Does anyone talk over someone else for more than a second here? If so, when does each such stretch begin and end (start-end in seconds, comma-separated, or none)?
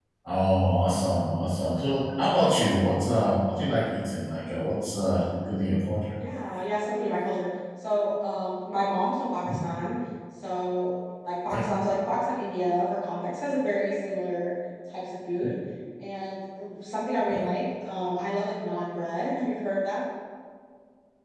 none